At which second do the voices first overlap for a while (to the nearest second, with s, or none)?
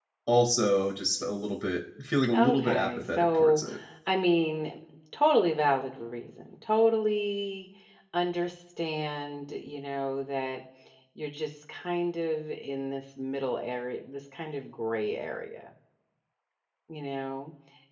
2 s